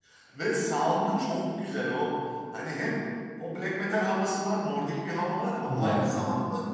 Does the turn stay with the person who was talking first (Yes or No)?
Yes